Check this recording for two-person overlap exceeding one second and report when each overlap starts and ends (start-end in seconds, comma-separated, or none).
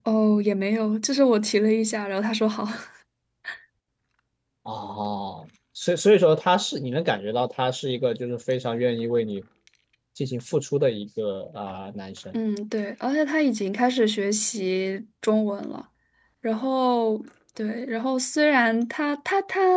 none